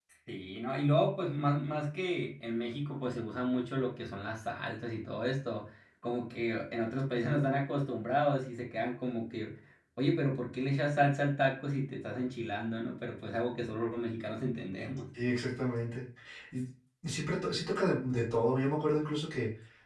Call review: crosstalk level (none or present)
none